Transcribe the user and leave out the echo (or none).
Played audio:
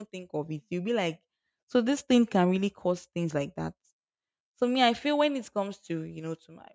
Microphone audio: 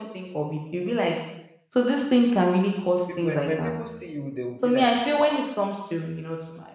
people when, when people see you they will be like wow